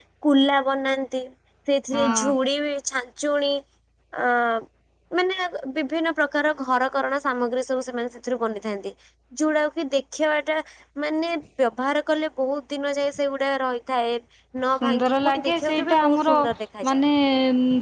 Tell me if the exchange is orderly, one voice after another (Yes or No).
No